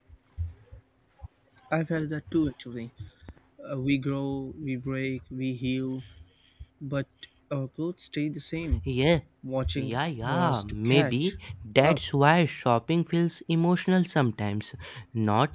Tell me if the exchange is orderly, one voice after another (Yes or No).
No